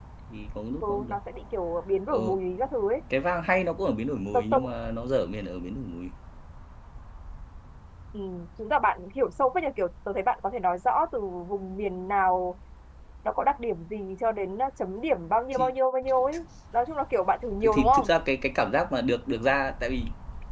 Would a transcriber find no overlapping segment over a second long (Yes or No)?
Yes